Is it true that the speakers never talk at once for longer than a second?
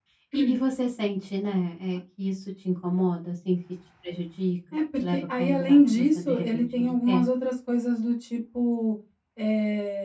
No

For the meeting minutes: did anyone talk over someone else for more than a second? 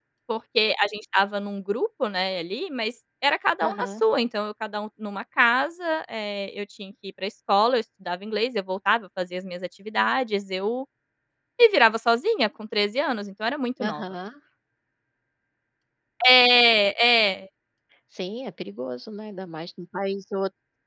No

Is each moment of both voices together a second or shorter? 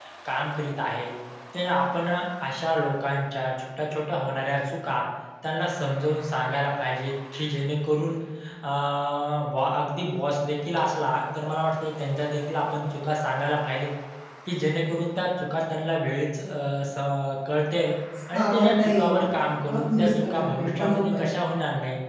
No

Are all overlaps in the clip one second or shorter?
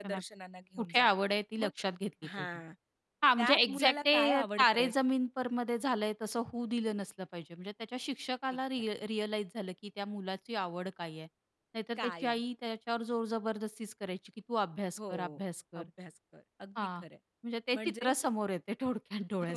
No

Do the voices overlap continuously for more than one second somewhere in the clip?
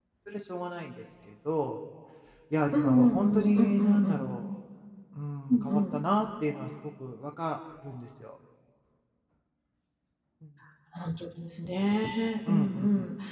Yes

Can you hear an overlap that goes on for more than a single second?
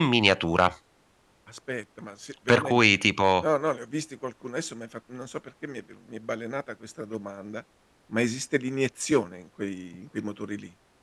No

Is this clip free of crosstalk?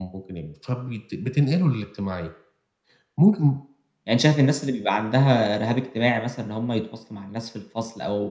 Yes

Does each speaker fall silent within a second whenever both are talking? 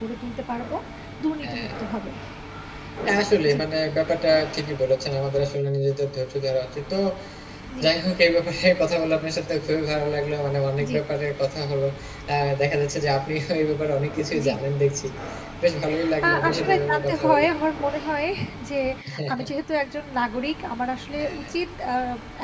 No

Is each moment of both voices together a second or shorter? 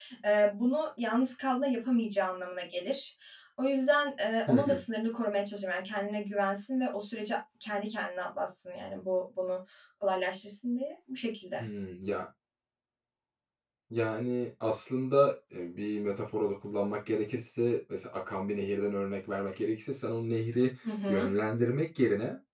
Yes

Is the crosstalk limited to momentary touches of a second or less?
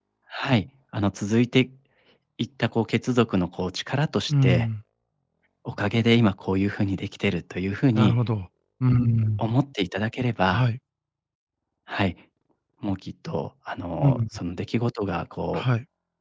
Yes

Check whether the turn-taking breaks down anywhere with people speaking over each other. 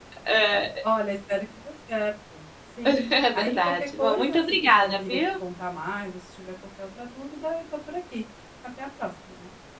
Yes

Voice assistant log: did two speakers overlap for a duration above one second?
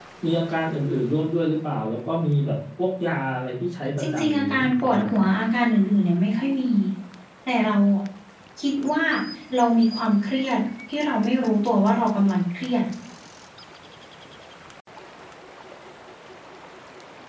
Yes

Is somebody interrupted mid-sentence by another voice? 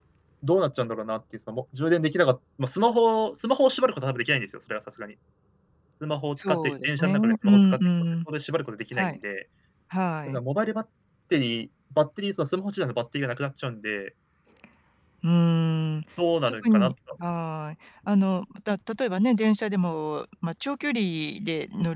Yes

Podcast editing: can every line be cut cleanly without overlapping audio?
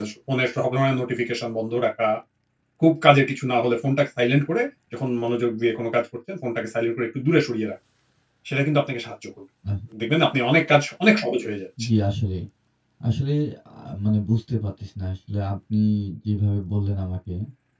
Yes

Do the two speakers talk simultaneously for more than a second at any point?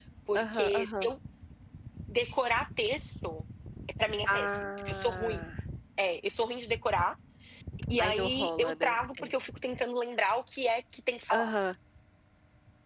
Yes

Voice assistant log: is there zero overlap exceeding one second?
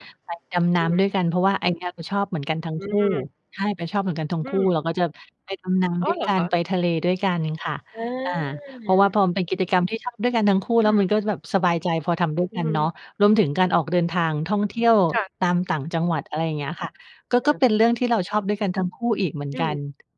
Yes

